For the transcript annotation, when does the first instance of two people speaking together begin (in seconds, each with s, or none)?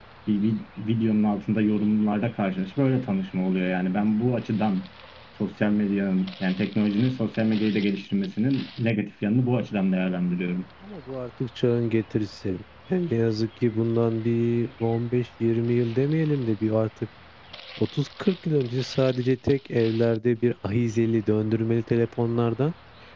none